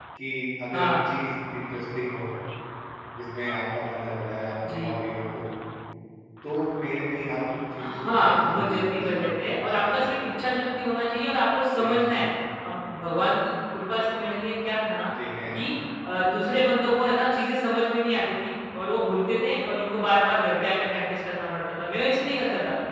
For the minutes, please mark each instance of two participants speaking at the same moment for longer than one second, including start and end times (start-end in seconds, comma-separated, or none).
7.8-9.2